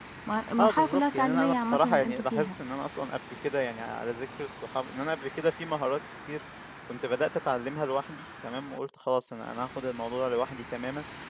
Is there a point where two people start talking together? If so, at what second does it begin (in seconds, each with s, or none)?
0.6 s